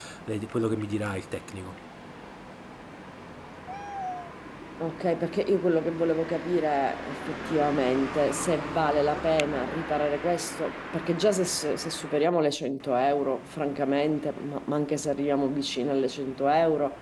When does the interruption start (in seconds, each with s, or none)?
none